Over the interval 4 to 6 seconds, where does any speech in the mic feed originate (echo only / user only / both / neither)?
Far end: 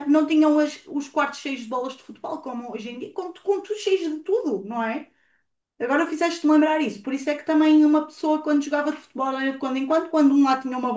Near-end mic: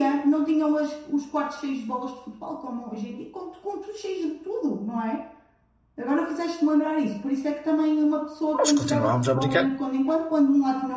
echo only